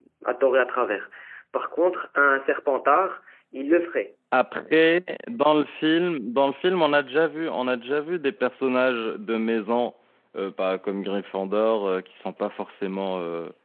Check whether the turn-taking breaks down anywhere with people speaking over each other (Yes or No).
No